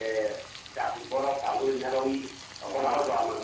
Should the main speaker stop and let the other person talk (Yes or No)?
No